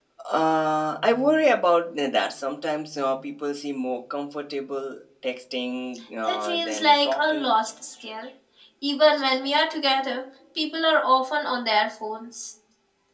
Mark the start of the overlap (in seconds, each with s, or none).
6.2 s